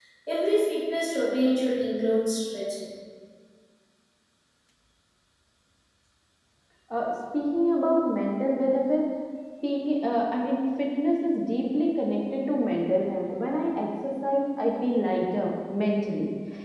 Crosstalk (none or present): none